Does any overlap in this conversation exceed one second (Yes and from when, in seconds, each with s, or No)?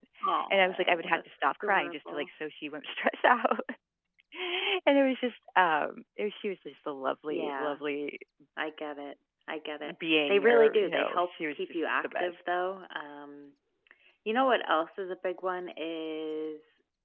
Yes, from 0.5 s